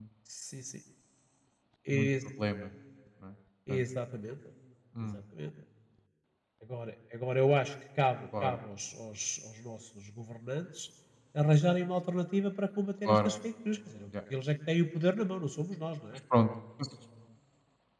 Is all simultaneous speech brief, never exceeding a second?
Yes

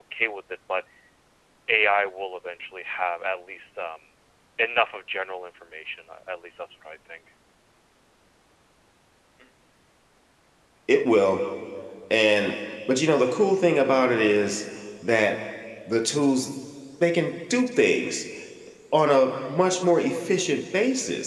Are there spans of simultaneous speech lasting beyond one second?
No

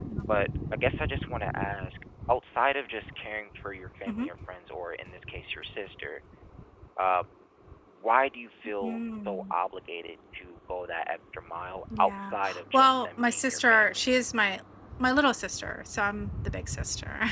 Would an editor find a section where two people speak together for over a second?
Yes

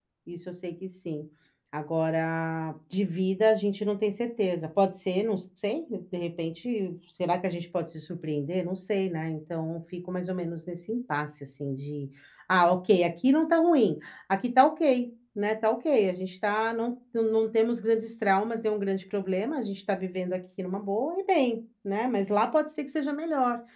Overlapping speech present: No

